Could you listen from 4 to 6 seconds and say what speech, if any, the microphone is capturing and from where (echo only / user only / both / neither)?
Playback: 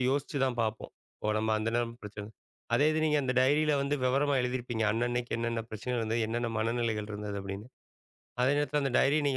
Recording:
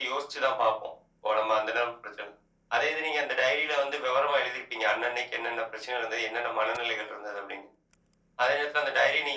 echo only